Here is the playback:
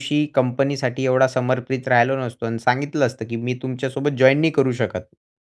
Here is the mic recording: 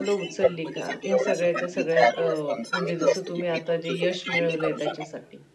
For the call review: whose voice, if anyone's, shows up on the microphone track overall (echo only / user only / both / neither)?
both